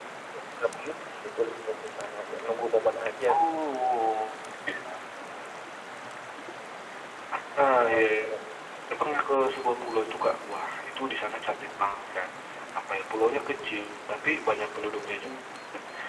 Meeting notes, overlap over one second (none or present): none